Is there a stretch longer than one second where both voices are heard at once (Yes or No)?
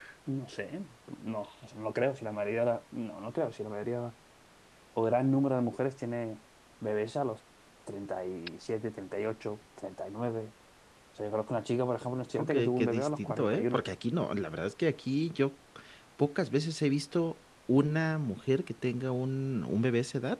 Yes